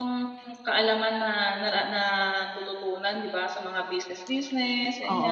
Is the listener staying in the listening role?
No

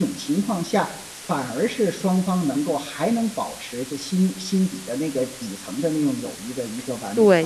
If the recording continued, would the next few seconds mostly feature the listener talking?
Yes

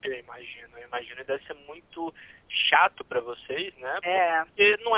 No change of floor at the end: Yes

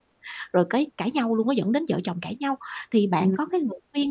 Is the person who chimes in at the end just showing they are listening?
Yes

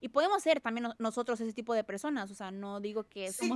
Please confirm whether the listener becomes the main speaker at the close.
Yes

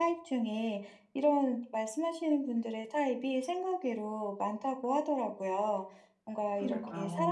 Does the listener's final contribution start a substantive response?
No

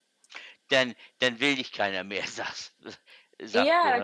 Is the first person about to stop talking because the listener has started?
Yes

